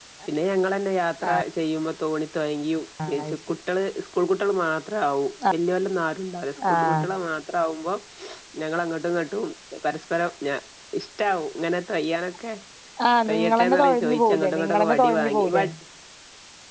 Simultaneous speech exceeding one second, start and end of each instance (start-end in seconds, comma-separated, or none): 13.3-15.6